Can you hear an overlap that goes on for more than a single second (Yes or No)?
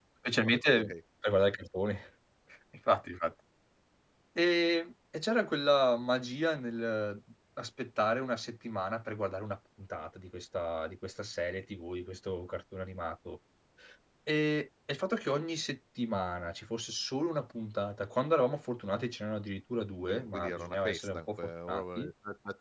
Yes